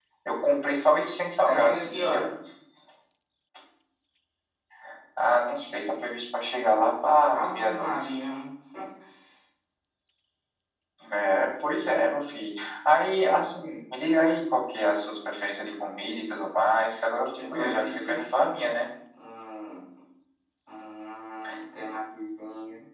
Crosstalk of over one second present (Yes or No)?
Yes